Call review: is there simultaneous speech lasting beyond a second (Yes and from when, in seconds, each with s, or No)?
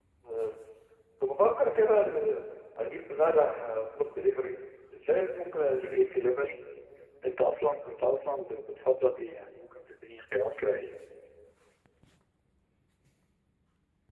No